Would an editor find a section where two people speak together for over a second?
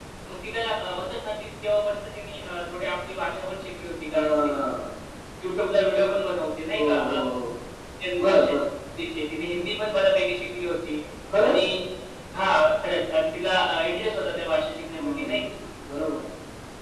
No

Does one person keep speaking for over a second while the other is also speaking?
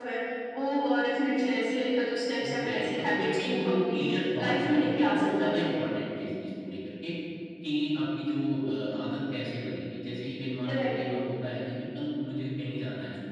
Yes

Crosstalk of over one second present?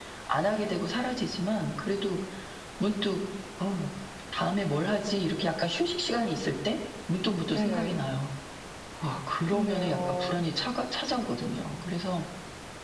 Yes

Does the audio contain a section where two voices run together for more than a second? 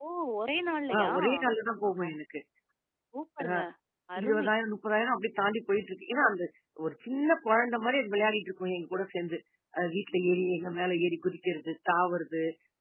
No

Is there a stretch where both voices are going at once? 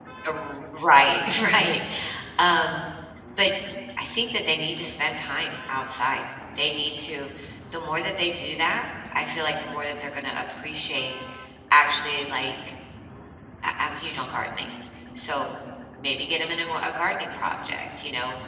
No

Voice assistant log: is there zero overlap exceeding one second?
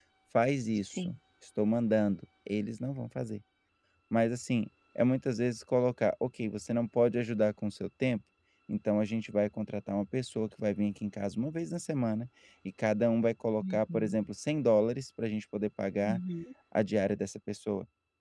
Yes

